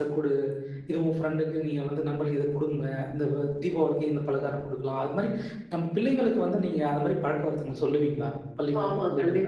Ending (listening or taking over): taking over